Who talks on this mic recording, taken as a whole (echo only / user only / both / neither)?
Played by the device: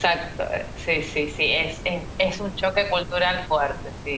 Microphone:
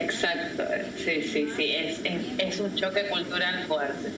both